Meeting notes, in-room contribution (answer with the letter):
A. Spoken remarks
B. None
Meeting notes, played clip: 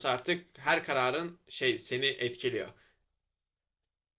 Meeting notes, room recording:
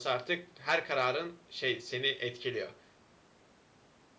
B